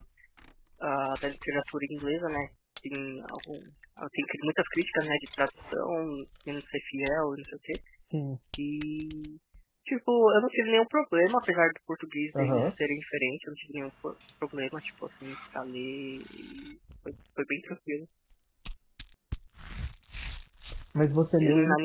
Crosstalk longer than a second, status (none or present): none